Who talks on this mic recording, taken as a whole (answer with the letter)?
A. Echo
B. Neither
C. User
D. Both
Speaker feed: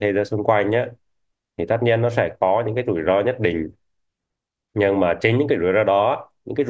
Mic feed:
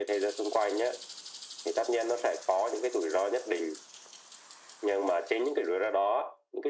A